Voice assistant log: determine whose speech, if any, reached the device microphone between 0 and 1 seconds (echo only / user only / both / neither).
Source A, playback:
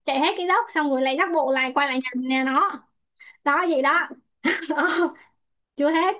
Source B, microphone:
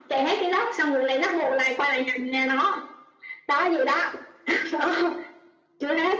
echo only